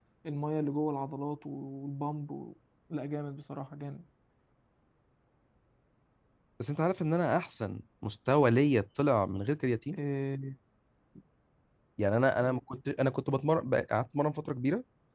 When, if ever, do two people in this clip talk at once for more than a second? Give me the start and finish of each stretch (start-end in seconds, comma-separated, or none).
none